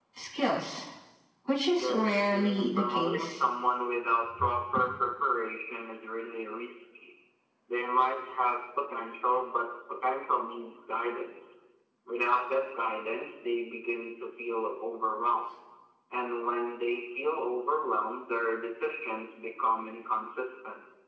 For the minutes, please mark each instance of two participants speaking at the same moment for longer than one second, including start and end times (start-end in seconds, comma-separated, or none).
1.8-3.4